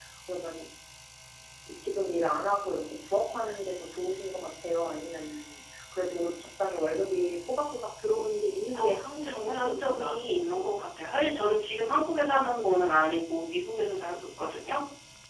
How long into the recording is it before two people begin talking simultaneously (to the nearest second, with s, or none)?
9 s